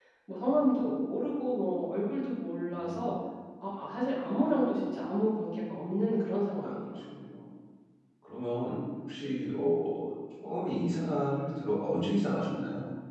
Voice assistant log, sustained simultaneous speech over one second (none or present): none